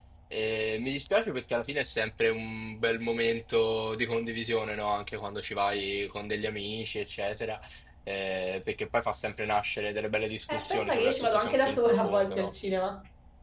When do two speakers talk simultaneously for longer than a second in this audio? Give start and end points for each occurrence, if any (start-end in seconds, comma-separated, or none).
10.5-12.5